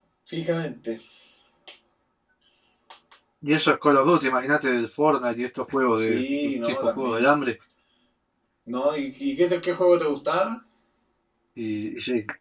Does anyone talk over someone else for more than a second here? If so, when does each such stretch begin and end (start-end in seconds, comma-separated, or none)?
6.0-7.2